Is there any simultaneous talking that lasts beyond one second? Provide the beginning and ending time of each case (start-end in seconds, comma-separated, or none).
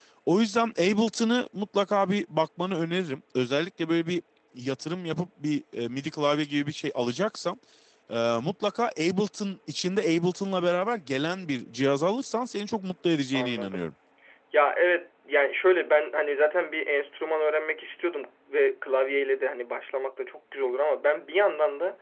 none